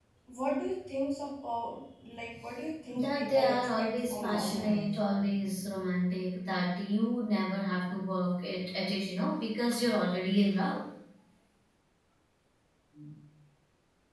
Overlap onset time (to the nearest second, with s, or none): 3 s